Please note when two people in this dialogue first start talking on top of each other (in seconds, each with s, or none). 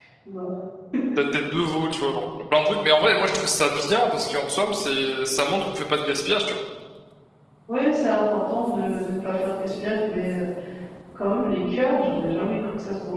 none